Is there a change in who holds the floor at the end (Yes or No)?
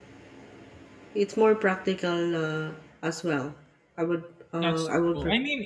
Yes